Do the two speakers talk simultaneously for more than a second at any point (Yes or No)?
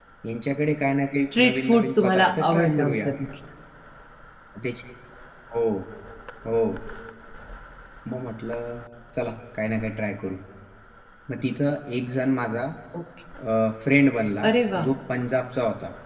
Yes